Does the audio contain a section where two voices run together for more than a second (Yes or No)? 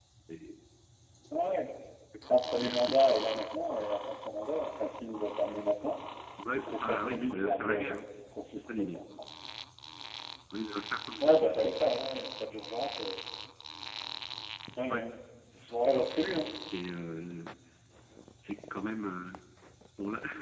Yes